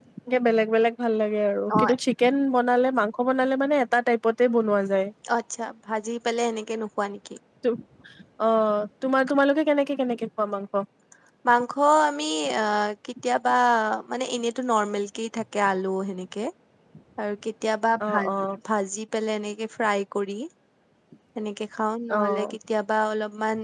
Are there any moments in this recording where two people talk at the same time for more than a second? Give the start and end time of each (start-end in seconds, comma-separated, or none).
none